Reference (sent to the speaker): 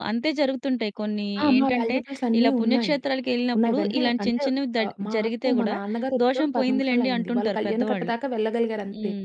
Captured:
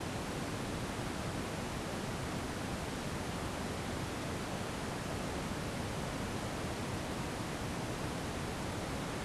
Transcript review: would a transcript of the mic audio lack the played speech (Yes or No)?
Yes